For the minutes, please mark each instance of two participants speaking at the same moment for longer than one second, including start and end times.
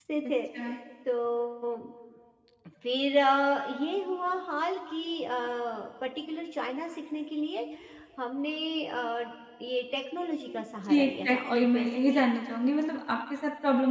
10.8-12.2

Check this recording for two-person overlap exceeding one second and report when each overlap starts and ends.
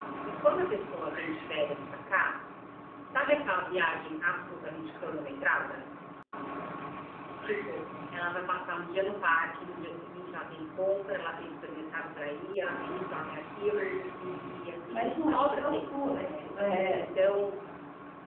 14.9-16.4

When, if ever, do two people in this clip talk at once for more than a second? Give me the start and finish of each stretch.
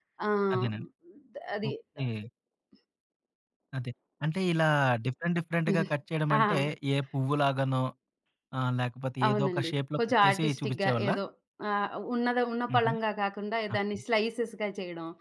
9.3-11.1

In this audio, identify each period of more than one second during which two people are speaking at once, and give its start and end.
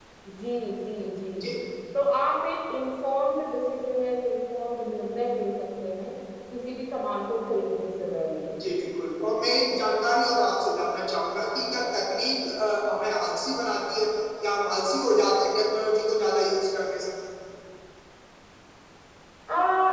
none

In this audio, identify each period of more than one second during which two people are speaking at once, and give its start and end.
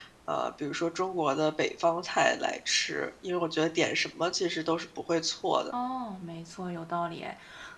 none

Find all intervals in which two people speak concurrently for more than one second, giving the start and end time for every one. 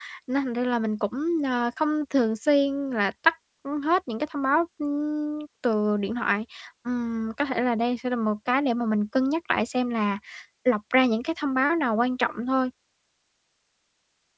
none

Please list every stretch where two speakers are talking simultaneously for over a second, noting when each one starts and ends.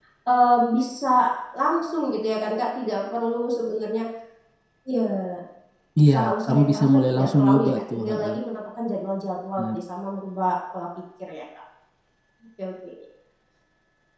6.1-8.3

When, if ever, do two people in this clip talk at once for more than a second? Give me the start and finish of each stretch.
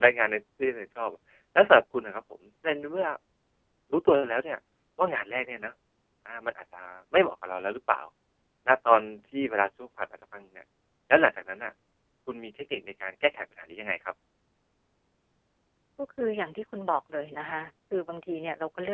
none

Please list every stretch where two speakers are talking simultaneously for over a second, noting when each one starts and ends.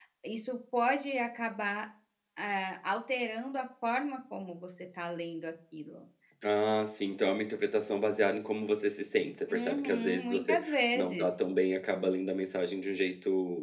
9.5-11.3

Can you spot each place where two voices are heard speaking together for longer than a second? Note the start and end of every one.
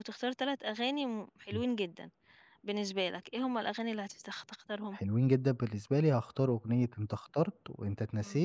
none

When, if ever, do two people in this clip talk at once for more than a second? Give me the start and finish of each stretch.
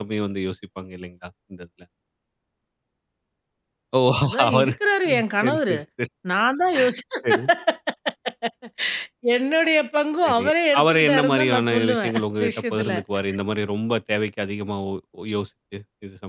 10.2-12.9

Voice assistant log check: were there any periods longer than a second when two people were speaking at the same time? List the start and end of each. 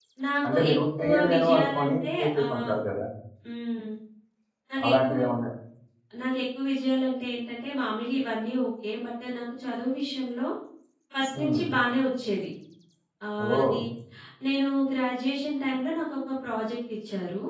0.5-2.7

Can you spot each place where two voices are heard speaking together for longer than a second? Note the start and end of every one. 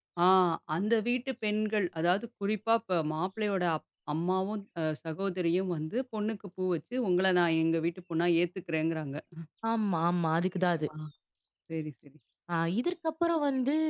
none

